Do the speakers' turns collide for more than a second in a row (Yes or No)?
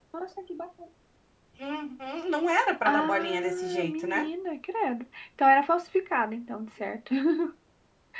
Yes